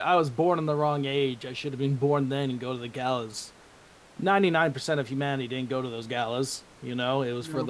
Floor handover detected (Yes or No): No